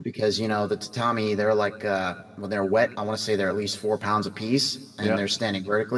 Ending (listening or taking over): listening